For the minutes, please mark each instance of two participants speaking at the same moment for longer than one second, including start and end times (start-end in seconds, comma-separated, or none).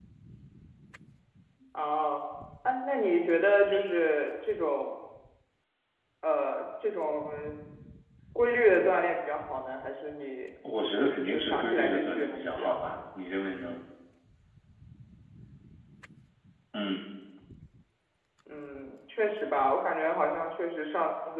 11.0-13.0